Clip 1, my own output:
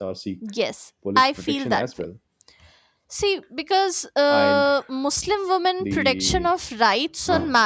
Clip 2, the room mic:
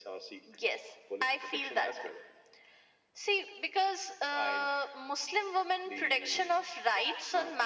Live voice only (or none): none